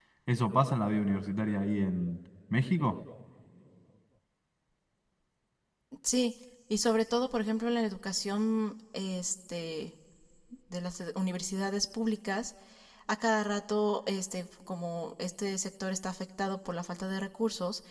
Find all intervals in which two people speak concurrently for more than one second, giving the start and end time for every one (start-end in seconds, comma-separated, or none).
none